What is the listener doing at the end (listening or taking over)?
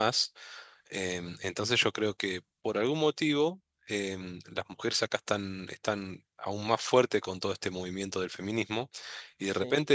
listening